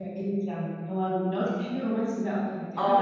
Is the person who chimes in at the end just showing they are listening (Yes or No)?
No